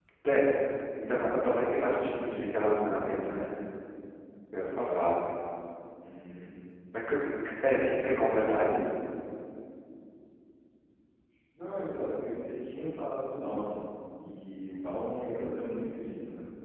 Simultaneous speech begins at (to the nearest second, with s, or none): none